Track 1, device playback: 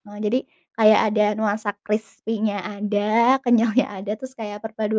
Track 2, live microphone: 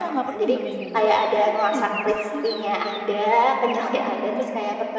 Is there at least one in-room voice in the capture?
Yes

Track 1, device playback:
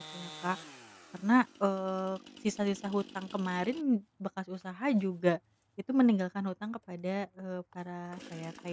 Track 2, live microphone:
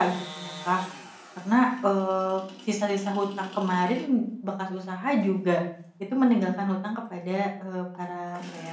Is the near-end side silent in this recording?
Yes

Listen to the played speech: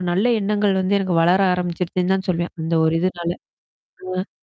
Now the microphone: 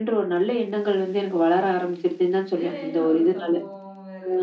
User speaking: Yes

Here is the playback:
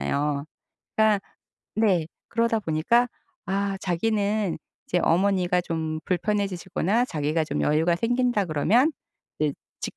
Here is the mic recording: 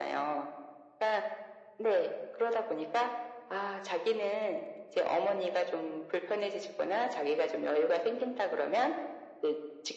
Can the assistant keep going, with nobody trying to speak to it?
Yes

